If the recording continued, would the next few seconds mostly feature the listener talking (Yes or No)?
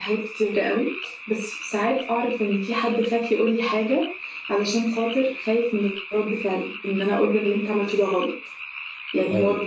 No